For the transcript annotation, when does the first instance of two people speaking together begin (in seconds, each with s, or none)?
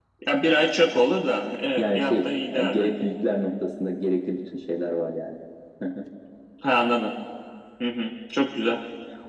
1.8 s